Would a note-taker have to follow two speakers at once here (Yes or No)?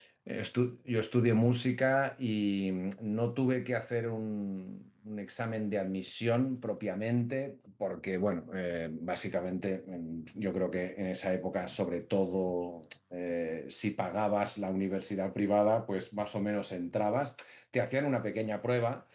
No